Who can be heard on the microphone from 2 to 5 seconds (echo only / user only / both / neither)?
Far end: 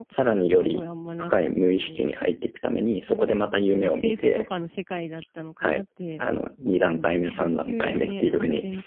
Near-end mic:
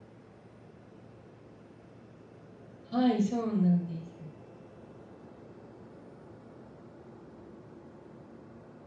user only